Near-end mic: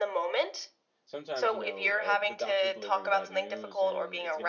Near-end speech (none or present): present